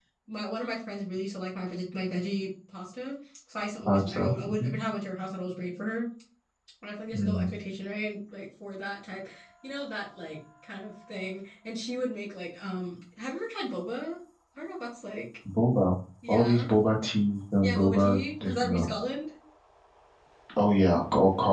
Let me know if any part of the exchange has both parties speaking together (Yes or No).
Yes